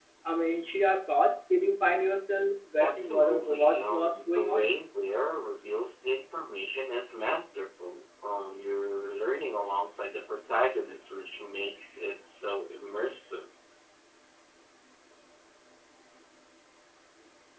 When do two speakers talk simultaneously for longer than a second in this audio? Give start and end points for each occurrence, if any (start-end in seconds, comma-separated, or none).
2.8-4.7